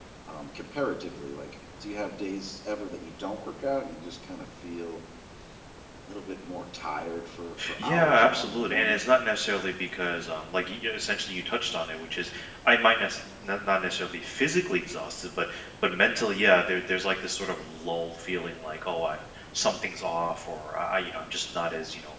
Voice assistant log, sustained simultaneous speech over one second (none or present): present